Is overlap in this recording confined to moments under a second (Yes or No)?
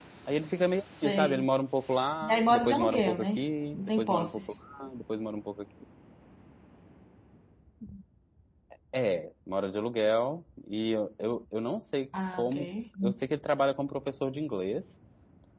No